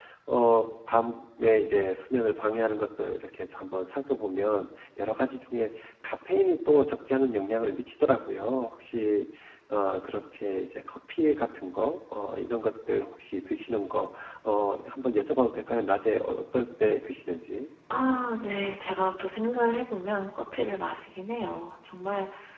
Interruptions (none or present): none